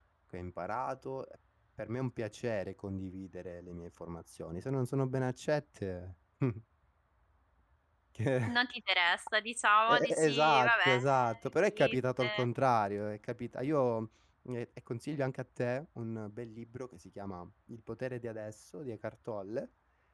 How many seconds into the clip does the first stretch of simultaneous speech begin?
10 s

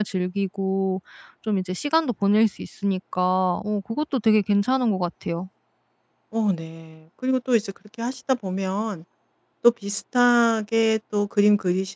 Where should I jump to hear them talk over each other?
none

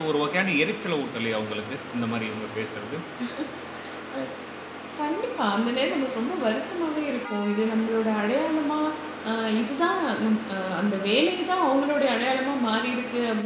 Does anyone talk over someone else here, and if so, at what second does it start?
none

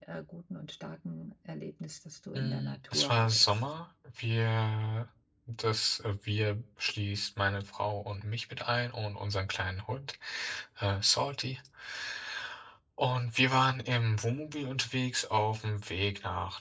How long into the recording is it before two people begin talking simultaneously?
2 s

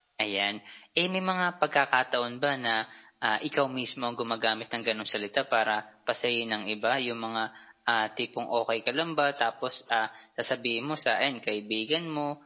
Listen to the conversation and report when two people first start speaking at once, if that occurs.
none

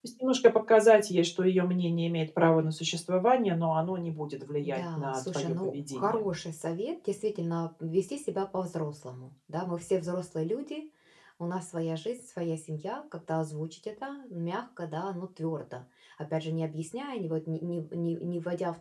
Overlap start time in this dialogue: 5 s

